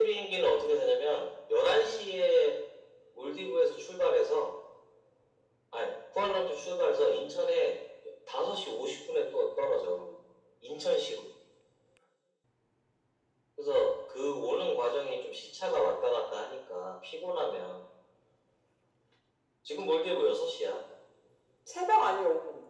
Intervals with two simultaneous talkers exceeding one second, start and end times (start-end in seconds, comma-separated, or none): none